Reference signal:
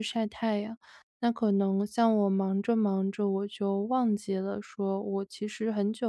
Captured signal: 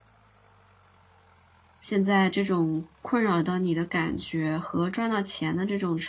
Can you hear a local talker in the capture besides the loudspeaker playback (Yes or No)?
Yes